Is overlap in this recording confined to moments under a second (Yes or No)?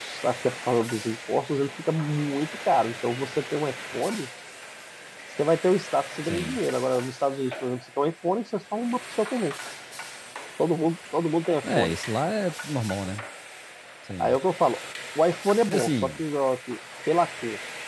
Yes